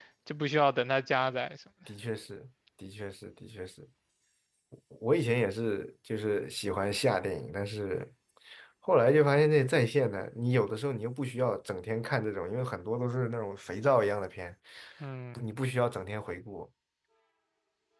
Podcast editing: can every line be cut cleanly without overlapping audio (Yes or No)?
Yes